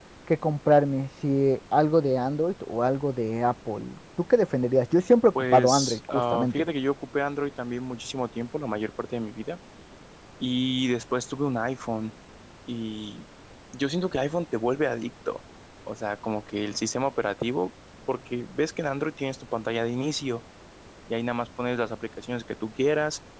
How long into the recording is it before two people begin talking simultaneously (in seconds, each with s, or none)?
5.3 s